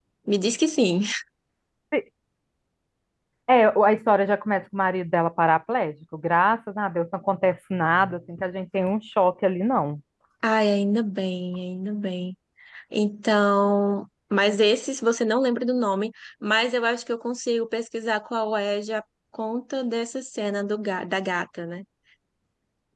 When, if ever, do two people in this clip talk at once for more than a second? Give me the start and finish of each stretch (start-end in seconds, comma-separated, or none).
none